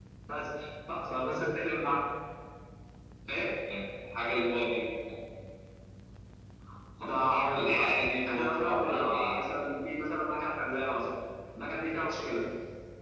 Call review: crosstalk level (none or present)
present